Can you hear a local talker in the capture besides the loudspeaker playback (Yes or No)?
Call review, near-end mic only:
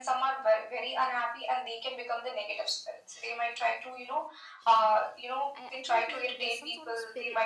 Yes